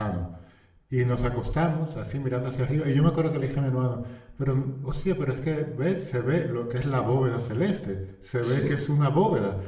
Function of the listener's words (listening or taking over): listening